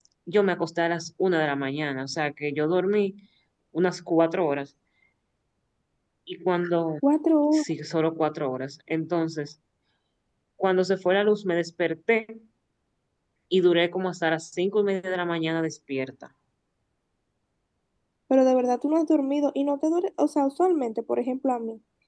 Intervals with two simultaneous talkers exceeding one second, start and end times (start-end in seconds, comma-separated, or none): none